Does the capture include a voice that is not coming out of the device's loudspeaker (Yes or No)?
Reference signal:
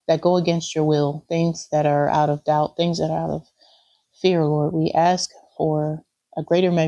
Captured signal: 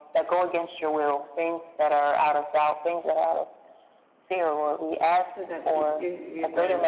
Yes